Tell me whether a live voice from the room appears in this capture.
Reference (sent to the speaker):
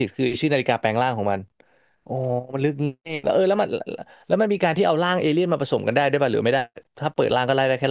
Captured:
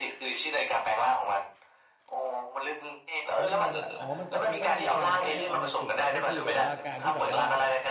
Yes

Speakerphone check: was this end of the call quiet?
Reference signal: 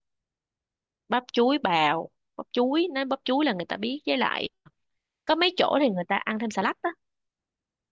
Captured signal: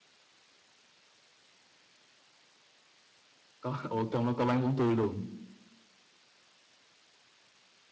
No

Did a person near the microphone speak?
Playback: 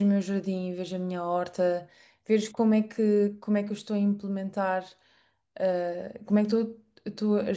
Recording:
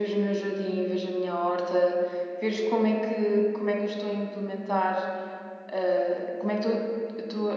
No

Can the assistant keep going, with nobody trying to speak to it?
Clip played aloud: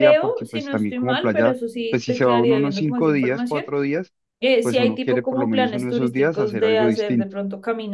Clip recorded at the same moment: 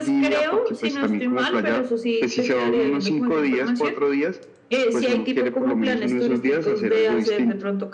Yes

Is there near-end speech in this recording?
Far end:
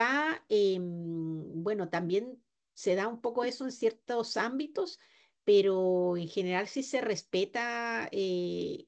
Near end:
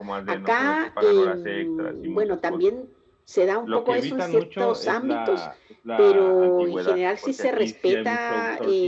Yes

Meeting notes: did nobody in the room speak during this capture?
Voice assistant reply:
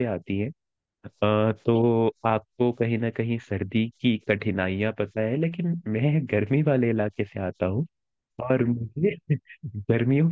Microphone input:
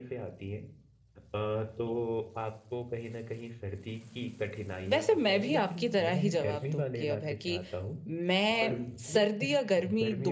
No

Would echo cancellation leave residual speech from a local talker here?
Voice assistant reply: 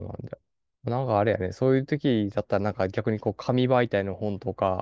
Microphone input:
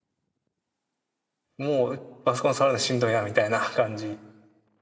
Yes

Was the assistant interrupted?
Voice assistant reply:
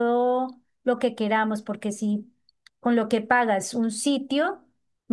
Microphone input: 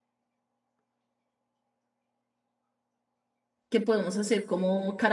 Yes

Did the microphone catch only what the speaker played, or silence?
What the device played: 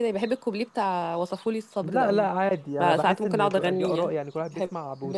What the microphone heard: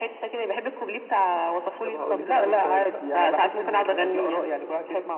No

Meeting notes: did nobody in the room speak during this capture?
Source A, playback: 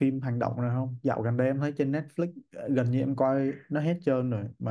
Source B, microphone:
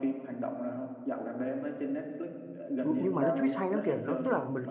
No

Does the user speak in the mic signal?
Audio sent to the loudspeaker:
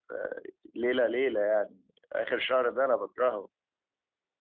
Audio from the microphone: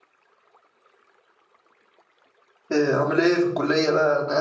Yes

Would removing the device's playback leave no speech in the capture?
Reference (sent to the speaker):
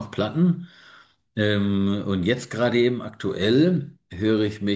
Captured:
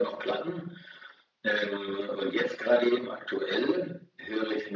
Yes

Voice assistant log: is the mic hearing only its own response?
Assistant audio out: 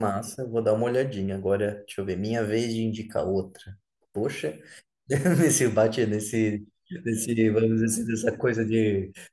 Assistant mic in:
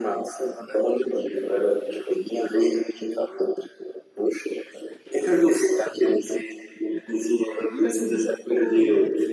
No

